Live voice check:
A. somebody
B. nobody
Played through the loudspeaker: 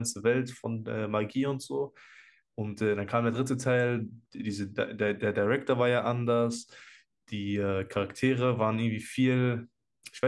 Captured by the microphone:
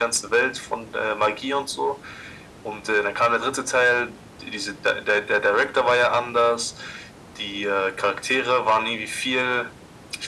B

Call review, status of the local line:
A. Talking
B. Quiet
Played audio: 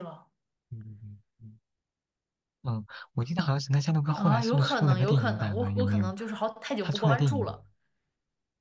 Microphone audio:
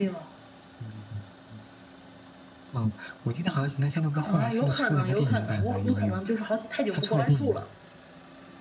B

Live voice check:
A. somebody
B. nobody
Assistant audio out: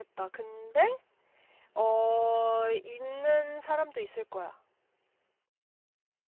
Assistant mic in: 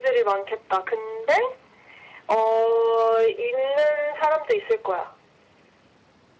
B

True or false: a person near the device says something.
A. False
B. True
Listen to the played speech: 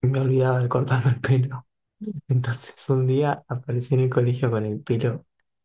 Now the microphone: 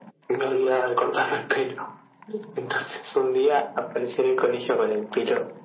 A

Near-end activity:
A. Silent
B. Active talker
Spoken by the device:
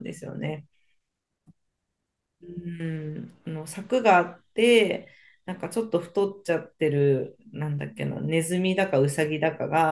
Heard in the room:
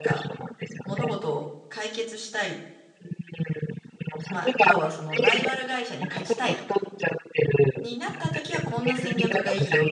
B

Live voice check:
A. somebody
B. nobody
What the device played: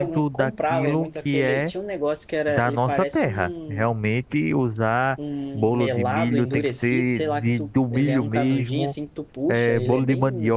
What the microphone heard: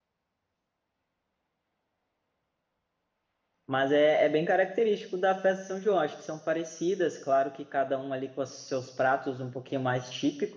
A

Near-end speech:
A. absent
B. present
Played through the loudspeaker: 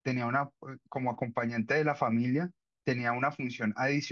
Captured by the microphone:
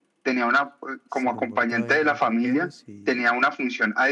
B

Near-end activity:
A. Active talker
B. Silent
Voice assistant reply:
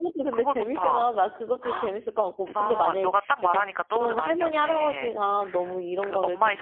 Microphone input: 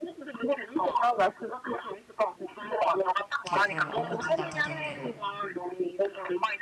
A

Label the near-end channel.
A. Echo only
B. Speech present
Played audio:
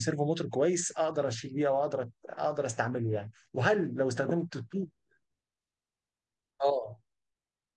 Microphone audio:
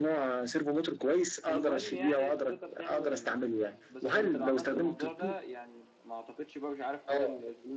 B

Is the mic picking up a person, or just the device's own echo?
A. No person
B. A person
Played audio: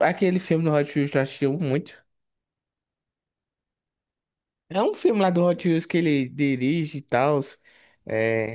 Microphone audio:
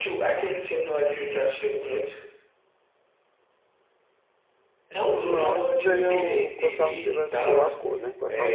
B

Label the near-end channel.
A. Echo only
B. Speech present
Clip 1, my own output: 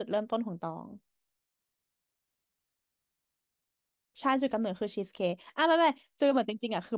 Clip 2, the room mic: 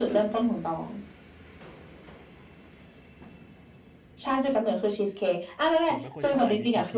B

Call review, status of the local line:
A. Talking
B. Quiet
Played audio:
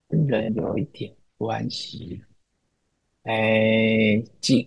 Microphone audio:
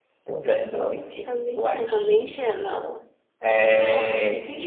A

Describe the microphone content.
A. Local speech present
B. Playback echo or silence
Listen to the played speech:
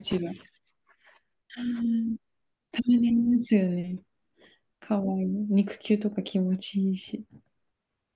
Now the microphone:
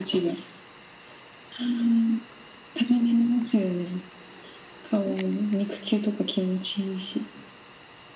B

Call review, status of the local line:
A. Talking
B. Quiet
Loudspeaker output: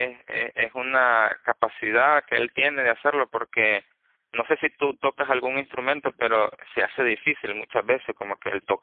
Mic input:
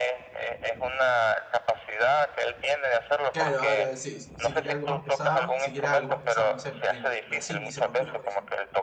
A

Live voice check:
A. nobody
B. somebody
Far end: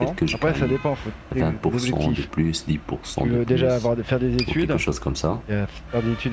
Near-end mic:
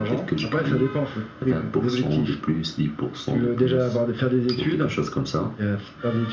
A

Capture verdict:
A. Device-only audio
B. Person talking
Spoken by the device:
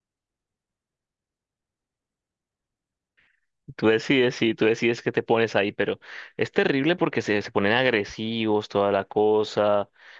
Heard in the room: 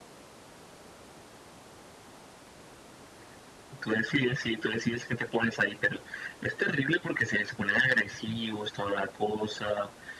A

